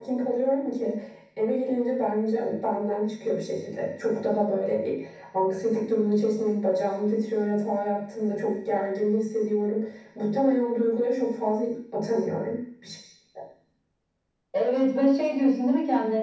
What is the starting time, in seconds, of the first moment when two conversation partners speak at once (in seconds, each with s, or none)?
none